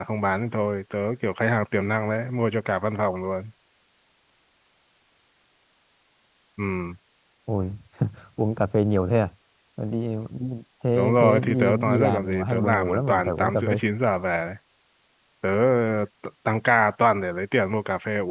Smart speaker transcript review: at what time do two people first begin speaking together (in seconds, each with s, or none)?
11.0 s